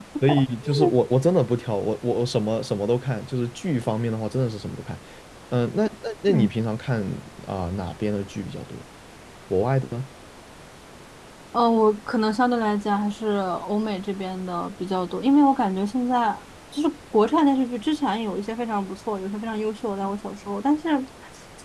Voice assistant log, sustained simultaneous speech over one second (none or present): none